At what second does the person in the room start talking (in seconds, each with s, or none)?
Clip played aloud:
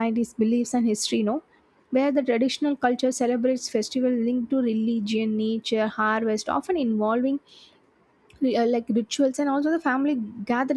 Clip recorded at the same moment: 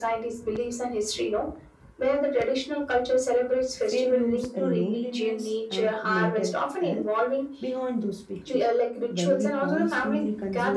3.8 s